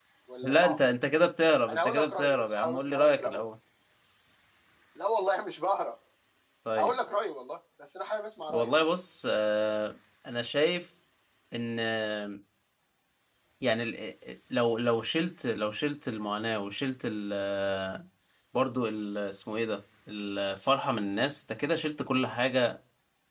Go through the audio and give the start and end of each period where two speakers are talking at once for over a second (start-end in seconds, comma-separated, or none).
1.7-3.4